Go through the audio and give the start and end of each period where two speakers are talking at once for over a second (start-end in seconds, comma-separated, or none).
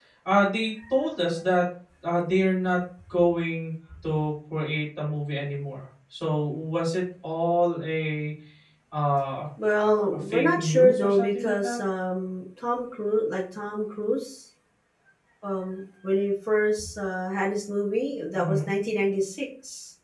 10.3-11.8